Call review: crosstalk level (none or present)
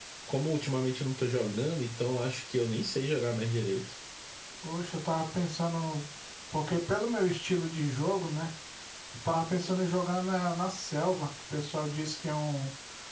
none